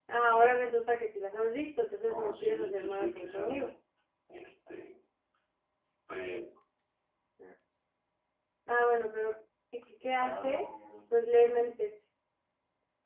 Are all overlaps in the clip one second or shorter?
No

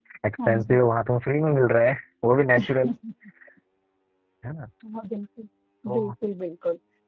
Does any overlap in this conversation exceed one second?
No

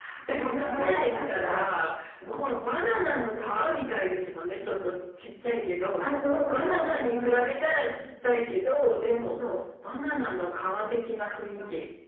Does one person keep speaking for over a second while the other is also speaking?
Yes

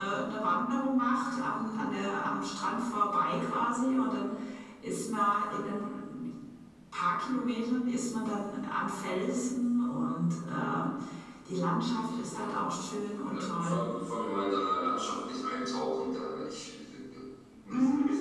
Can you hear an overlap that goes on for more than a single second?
No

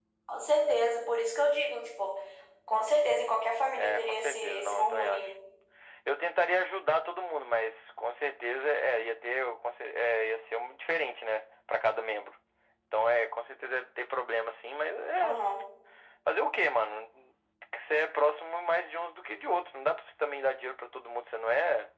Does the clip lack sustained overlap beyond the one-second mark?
No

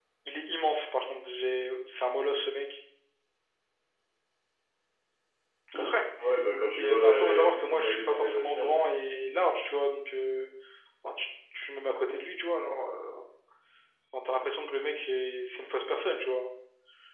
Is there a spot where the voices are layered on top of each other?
Yes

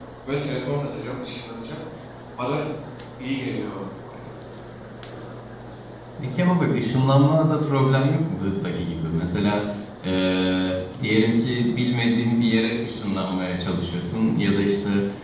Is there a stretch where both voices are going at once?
No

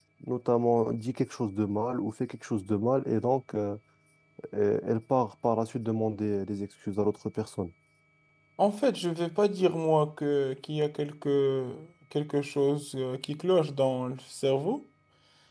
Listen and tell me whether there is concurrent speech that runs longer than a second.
No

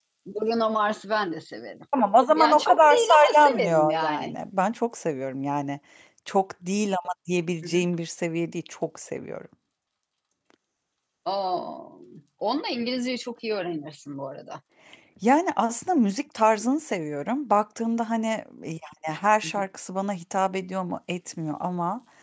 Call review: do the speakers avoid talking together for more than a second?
No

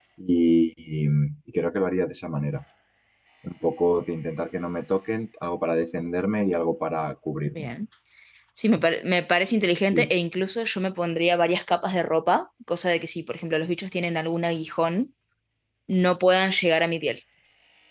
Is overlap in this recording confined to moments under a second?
Yes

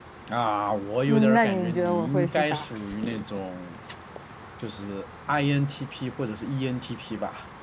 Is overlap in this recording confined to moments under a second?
No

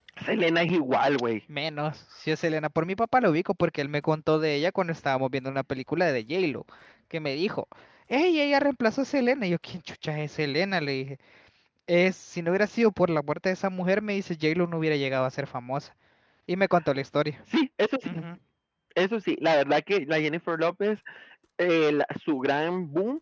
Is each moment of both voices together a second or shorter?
Yes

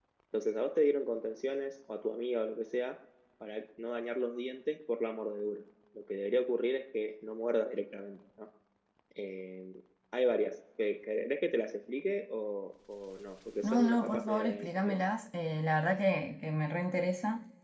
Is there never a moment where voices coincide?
No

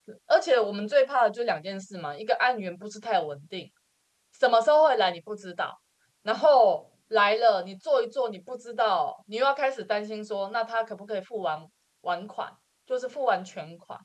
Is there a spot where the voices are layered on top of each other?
No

